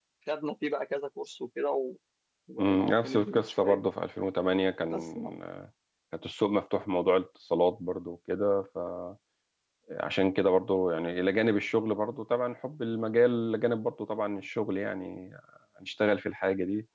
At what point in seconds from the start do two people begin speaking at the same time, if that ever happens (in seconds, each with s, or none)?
2.6 s